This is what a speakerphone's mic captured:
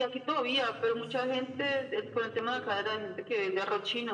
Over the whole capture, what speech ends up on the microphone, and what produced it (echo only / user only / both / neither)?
both